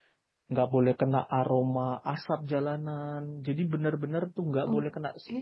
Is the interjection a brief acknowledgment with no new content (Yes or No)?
Yes